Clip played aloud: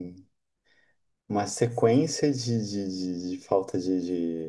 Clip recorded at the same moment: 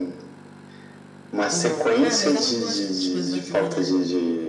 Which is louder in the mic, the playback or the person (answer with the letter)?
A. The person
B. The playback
B